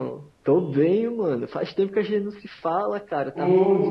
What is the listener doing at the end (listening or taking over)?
listening